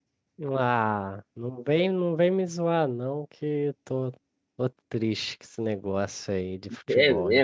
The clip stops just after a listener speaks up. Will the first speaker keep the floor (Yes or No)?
No